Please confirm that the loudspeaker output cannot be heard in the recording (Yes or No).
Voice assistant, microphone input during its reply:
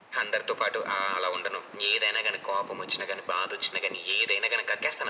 No